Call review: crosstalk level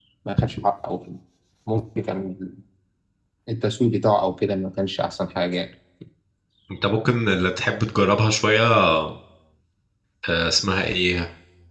none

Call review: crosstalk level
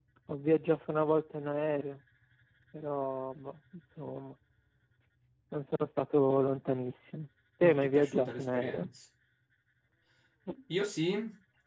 present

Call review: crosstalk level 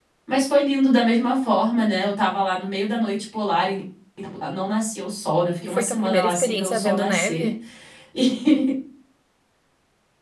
present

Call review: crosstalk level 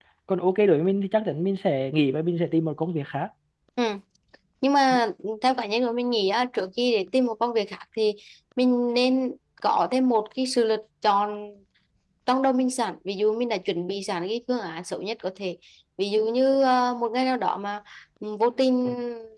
none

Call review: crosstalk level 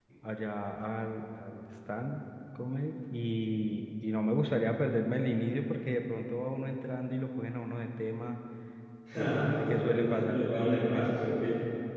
present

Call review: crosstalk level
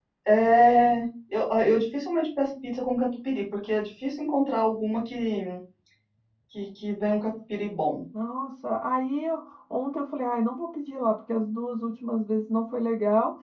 none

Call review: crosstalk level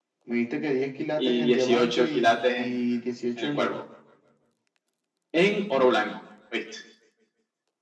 present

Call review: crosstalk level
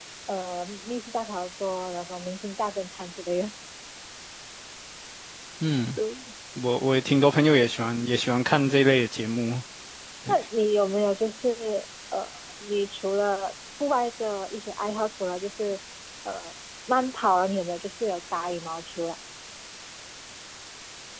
none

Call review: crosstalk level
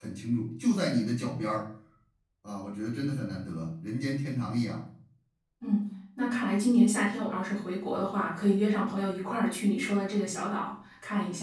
none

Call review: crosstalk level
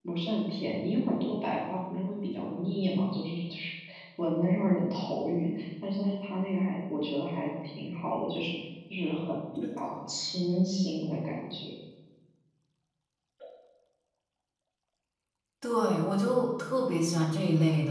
none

